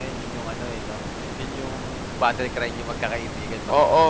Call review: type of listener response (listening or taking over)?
taking over